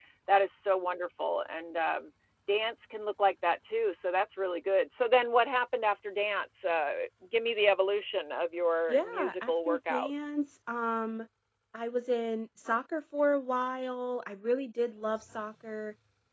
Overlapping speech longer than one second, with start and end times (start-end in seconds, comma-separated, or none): 8.9-10.1